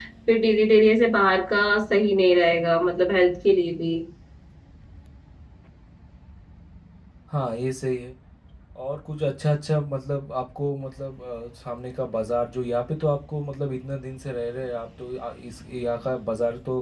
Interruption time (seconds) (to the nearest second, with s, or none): none